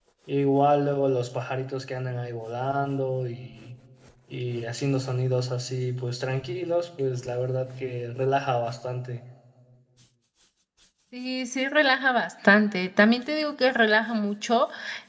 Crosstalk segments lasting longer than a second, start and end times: none

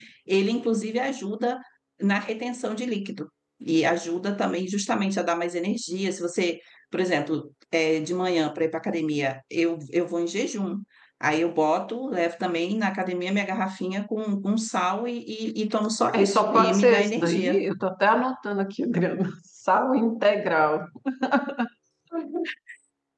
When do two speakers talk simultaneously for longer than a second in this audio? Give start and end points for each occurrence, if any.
16.1-17.6

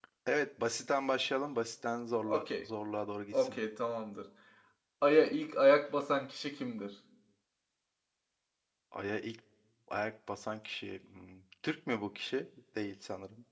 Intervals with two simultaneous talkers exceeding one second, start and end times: none

